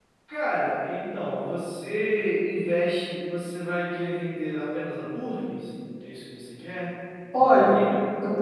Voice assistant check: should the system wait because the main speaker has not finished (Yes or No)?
No